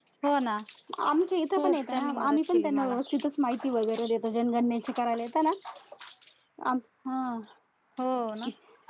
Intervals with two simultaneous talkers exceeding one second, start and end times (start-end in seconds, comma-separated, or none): 1.6-2.9